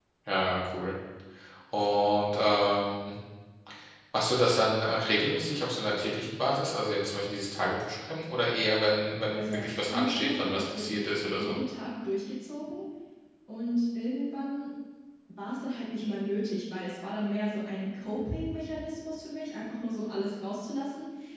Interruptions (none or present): present